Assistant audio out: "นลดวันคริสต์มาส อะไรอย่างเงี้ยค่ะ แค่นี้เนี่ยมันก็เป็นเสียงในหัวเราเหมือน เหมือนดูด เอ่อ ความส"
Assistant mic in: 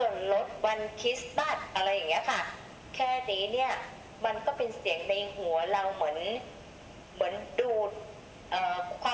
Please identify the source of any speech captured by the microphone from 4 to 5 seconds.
echo only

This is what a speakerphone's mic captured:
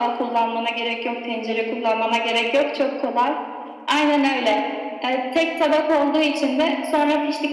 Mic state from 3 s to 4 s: echo only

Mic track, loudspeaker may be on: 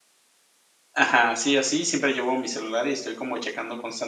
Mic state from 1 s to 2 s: user only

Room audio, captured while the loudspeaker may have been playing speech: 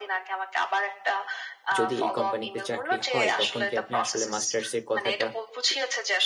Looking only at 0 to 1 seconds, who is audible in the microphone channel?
echo only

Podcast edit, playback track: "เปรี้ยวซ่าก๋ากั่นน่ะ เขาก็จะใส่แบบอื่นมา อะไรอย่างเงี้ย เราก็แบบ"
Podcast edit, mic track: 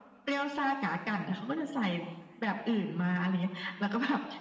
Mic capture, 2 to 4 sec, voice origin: echo only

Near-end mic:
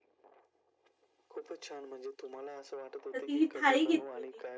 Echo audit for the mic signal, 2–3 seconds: echo only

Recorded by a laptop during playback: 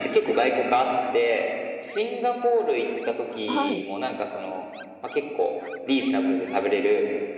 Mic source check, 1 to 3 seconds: echo only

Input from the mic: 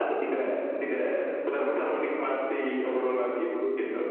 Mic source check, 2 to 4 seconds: echo only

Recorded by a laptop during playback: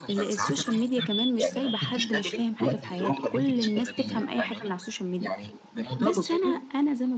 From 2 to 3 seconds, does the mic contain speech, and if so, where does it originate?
both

